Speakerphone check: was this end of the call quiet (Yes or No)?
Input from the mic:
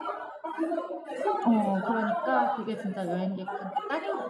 No